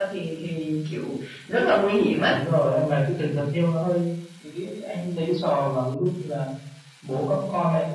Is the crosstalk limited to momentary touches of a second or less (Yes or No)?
Yes